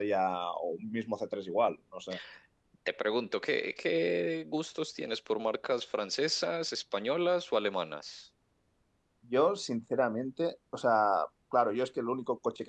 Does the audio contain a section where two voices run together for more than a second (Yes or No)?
No